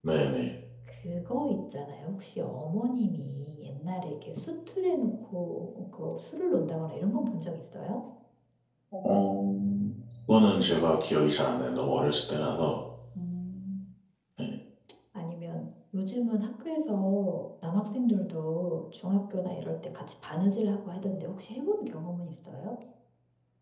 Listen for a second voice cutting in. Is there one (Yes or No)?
No